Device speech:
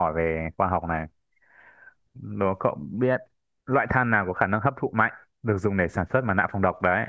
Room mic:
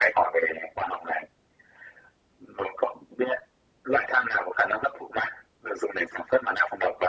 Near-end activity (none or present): none